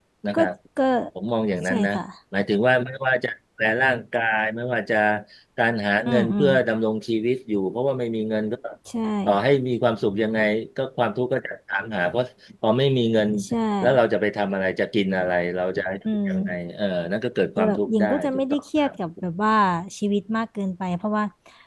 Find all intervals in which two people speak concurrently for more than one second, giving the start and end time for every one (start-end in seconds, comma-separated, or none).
17.6-18.9